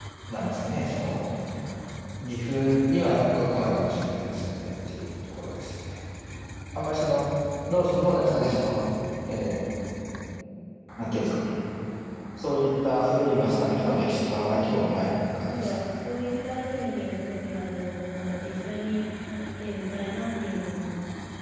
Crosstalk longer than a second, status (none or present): present